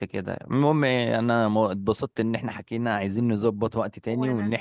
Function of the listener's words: listening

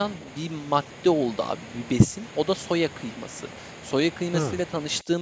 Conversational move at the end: listening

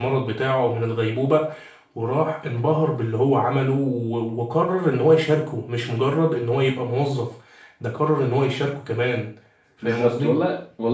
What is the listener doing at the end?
taking over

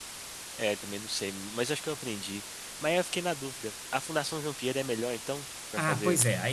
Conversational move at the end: taking over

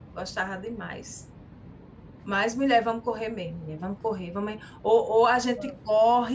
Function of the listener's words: listening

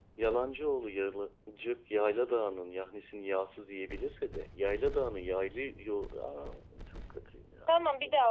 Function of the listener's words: taking over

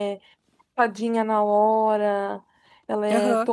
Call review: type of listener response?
listening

